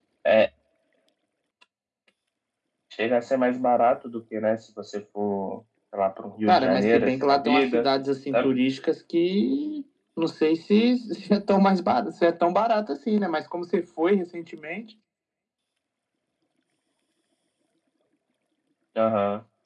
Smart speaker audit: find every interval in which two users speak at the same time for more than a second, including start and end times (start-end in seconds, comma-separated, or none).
6.5-7.9